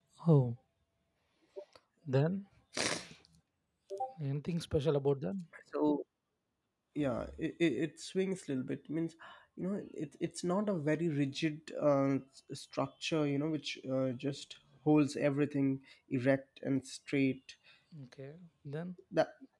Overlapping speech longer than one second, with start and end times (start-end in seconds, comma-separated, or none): none